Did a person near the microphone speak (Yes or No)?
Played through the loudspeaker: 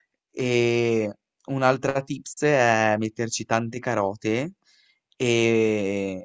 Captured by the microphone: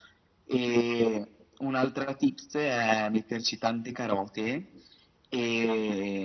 No